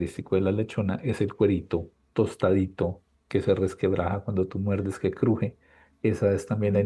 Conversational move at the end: listening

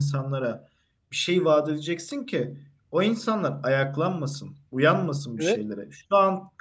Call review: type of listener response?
listening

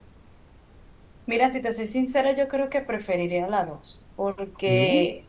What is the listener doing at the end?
listening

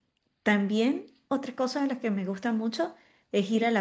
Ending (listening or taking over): listening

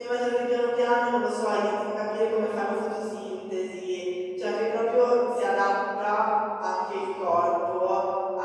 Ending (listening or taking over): listening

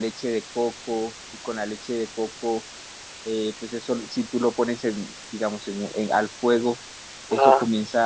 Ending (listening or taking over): listening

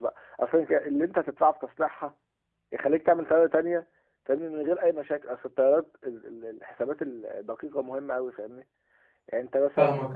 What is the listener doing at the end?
taking over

